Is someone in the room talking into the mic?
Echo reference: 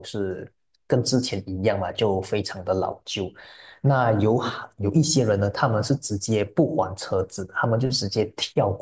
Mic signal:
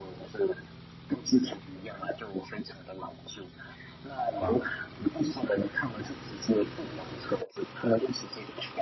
Yes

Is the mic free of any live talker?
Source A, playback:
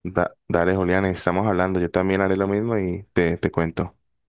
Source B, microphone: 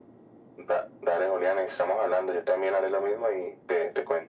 Yes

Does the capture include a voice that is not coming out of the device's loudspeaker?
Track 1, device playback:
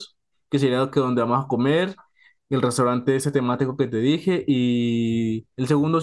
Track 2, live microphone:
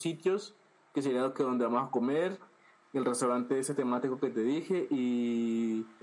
No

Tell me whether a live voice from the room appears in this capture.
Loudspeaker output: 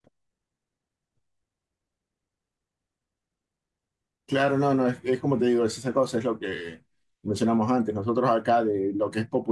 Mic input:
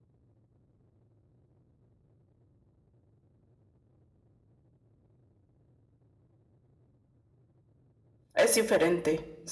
Yes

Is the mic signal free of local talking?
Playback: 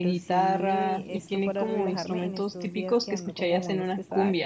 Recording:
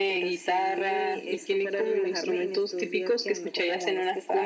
Yes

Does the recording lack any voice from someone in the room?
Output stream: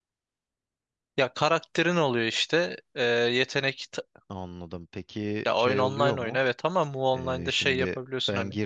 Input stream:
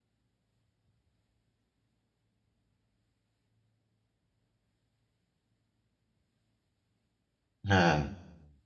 No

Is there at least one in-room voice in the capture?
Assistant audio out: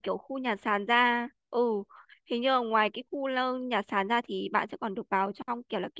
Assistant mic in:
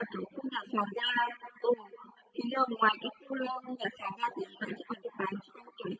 No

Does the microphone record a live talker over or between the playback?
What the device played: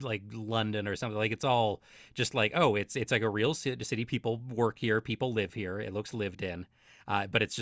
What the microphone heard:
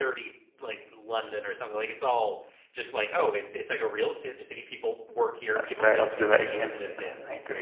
Yes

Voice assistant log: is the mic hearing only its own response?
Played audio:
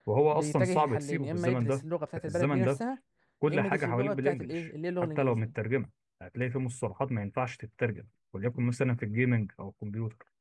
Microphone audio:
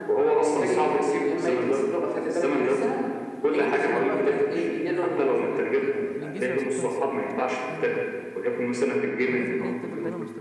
No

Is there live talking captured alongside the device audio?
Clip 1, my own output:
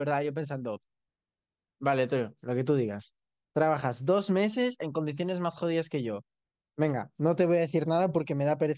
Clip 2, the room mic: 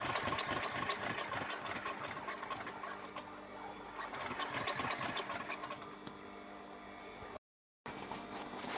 No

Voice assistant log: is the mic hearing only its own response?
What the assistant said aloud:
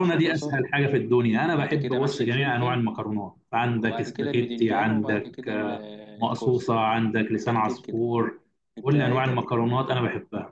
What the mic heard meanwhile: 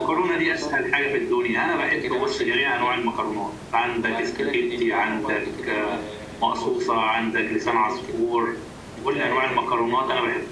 Yes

